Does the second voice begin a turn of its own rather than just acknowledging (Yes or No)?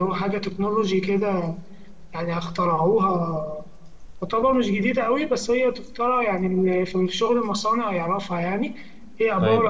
Yes